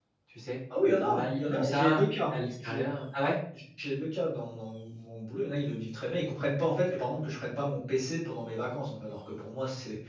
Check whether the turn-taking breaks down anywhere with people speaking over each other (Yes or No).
Yes